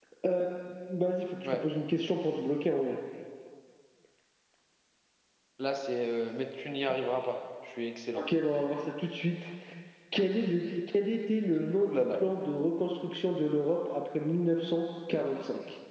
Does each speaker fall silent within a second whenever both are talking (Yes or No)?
Yes